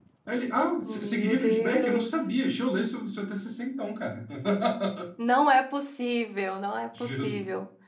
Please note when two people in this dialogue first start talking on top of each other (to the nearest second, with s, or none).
1 s